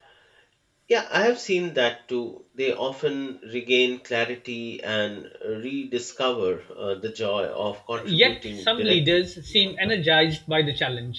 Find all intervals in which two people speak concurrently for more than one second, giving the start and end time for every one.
8.0-9.2

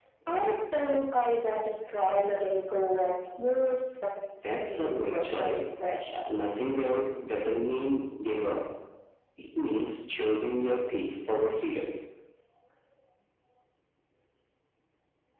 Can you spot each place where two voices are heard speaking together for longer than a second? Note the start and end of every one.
4.4-5.6

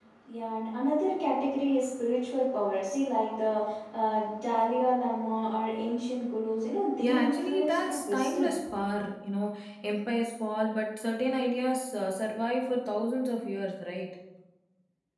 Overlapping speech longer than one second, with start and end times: 7.0-8.5

